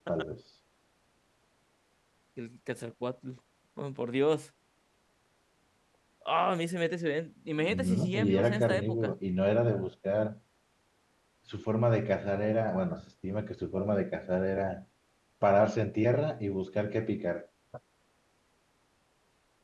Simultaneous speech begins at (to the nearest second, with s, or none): 8 s